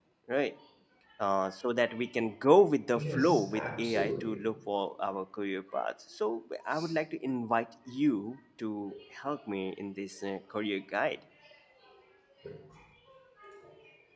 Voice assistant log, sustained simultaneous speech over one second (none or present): present